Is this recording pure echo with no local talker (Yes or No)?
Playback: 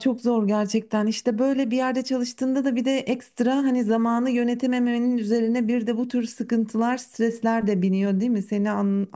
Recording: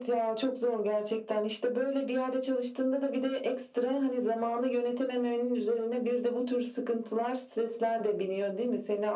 Yes